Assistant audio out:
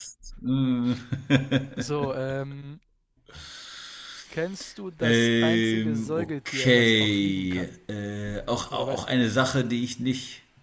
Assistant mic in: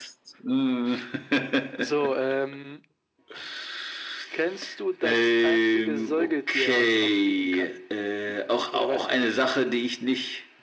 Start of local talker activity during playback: none

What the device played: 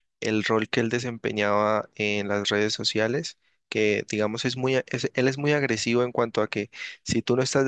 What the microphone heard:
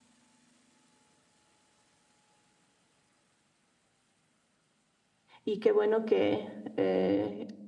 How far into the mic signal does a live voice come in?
5.4 s

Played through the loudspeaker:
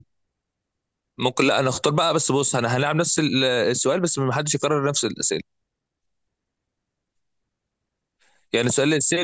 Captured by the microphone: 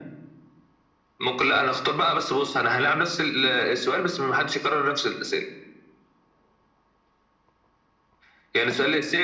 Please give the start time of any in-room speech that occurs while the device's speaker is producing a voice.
none

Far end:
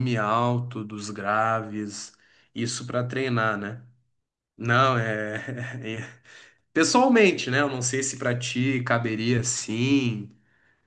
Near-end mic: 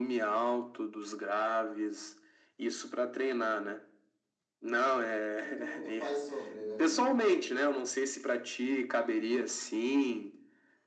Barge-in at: 5.4 s

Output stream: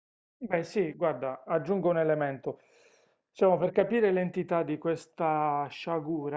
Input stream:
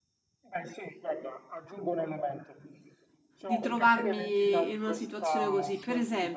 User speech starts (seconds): 3.4 s

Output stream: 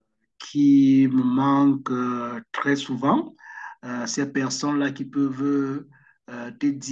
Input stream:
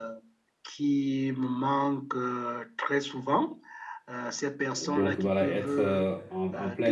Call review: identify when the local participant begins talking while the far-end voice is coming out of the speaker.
4.7 s

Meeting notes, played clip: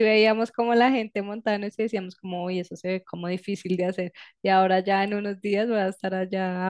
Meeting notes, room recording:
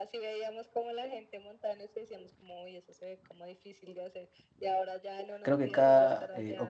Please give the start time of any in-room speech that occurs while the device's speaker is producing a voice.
5.4 s

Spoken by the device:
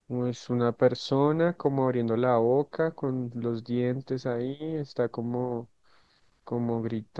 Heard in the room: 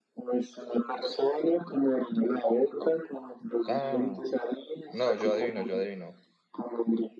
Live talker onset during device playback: 3.7 s

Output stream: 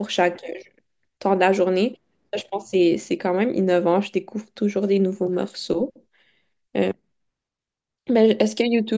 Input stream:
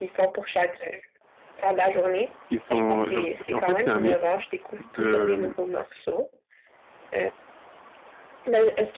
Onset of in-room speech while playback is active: 2.5 s

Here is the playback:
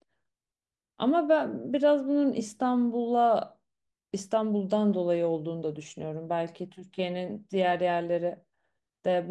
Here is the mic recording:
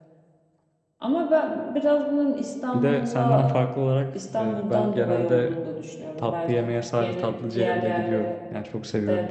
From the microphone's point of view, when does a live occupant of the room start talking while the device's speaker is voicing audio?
2.7 s

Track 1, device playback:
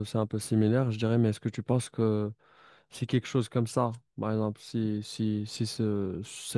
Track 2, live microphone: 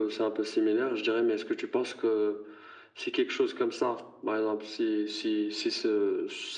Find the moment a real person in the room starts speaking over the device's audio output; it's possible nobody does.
none

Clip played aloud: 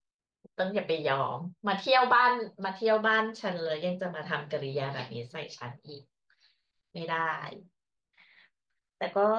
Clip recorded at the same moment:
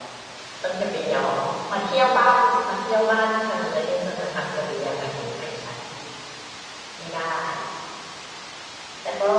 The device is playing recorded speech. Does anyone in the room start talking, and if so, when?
none

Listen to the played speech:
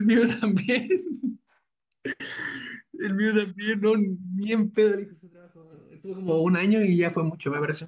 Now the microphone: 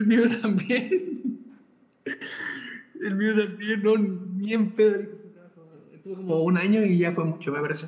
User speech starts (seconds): none

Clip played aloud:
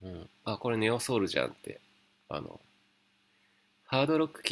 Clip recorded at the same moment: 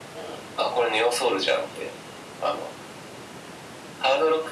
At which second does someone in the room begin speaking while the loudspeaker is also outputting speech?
none

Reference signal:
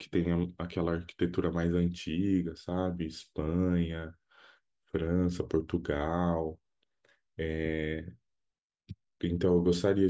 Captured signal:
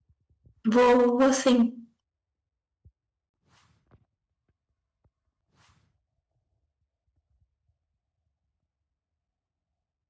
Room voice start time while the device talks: 0.7 s

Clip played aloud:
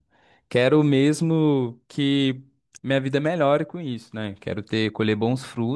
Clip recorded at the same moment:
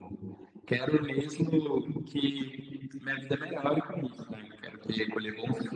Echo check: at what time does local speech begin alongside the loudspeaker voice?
none

